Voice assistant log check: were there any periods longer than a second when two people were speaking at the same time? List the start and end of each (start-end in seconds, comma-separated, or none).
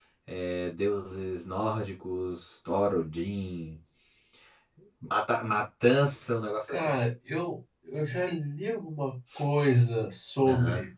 none